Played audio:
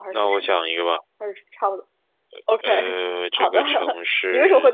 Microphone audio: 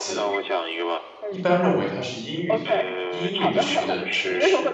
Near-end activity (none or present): present